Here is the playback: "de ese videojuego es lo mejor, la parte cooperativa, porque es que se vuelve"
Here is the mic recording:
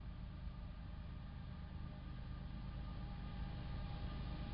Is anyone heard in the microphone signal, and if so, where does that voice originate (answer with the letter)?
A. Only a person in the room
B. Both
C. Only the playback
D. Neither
D